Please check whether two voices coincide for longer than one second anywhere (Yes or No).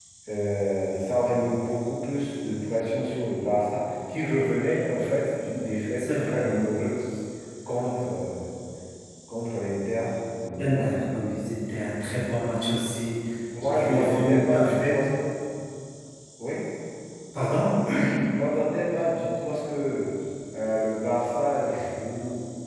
Yes